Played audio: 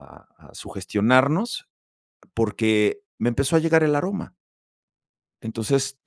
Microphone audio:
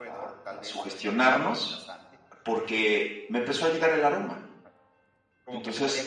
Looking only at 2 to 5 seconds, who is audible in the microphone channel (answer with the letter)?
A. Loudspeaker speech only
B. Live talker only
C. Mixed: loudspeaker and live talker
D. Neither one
C